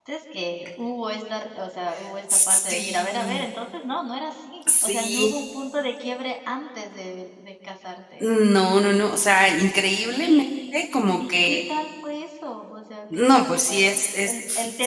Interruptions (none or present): present